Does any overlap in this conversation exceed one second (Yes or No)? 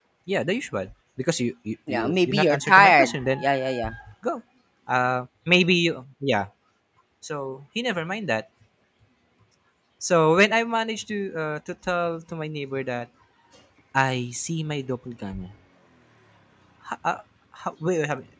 Yes